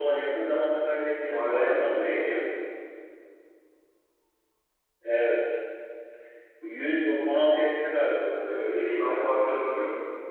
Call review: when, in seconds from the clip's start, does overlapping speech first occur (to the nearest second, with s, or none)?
1 s